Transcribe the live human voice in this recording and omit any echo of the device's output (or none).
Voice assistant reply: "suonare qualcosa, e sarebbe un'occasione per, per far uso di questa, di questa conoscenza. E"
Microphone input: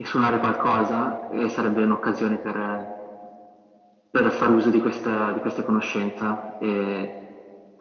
none